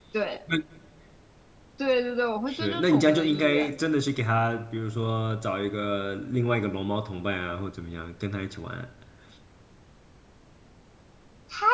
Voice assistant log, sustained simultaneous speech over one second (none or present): present